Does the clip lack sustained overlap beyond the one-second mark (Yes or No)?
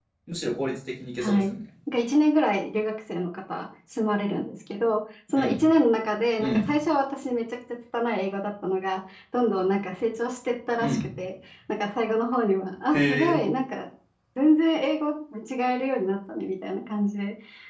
Yes